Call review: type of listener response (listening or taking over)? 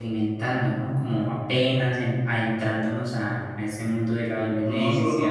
taking over